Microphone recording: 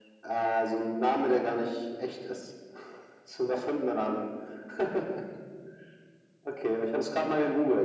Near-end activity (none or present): none